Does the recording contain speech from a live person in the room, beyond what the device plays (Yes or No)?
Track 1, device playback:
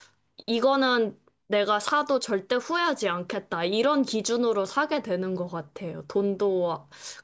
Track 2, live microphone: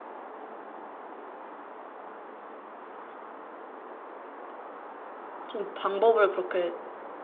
Yes